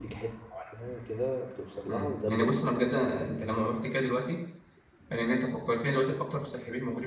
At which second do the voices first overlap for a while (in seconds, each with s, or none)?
1.9 s